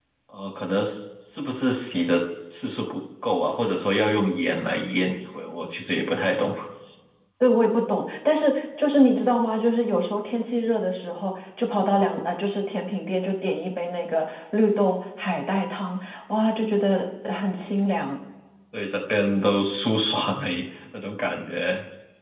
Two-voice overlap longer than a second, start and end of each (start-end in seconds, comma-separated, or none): none